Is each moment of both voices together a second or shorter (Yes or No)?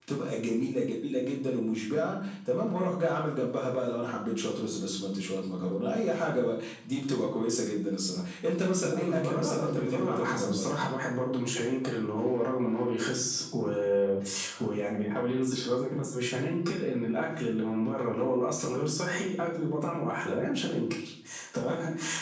No